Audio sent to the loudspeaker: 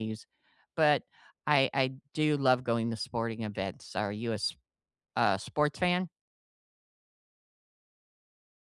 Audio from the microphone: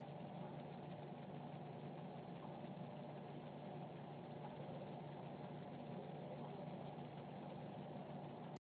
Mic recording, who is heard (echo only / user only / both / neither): neither